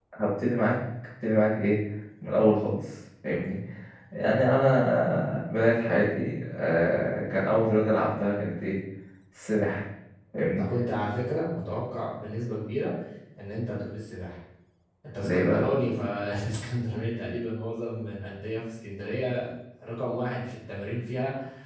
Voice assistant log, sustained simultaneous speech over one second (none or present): none